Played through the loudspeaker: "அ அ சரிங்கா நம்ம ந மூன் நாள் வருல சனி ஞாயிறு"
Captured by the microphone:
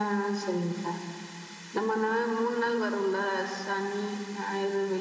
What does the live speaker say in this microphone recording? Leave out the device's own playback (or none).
none